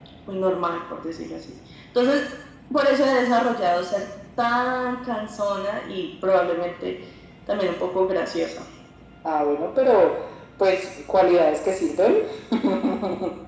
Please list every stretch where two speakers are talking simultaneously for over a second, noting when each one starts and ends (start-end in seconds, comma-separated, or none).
none